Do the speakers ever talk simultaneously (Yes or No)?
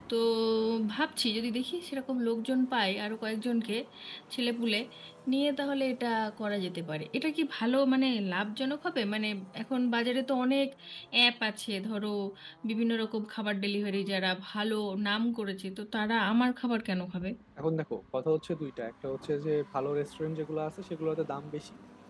No